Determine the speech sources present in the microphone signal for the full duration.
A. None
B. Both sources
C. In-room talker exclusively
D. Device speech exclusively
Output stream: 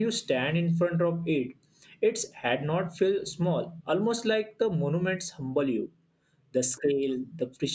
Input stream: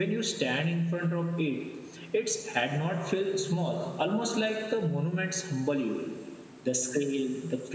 D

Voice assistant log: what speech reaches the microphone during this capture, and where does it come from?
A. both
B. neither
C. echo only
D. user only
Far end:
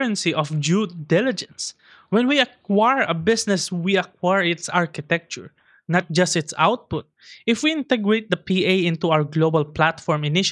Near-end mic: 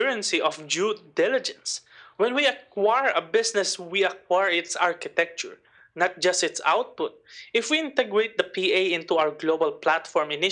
C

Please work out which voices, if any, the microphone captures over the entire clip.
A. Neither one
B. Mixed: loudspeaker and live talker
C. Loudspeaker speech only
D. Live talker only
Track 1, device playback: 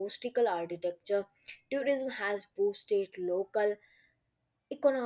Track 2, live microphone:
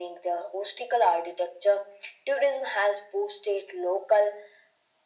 C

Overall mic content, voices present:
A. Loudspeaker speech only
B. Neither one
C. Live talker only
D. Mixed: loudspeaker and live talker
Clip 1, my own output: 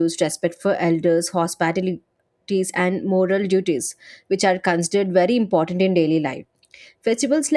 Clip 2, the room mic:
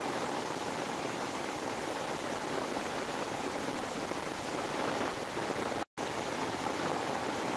B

